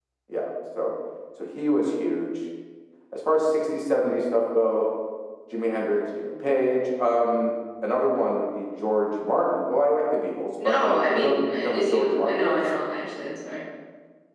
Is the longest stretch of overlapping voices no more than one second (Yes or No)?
No